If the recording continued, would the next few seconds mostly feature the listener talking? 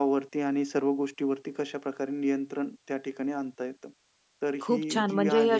Yes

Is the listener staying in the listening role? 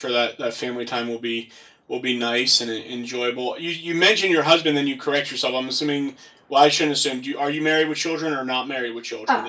No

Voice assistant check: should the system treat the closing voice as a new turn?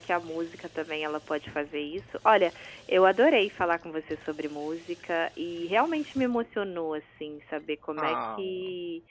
No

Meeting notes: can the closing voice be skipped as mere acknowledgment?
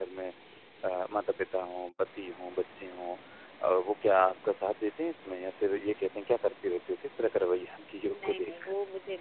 No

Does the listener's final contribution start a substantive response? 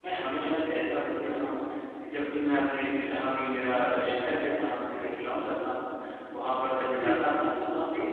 No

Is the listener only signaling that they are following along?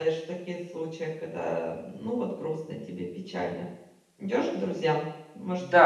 No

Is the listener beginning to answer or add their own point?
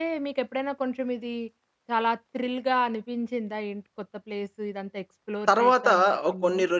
Yes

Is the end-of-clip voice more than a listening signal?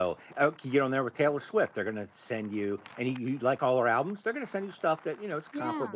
No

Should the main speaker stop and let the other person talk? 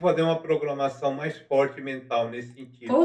Yes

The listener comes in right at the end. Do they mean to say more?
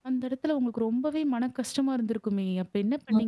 Yes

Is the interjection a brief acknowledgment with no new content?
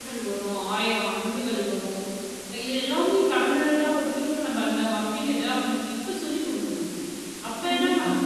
Yes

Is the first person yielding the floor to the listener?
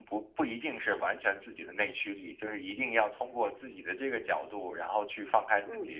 No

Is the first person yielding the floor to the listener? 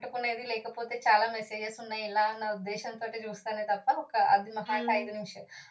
No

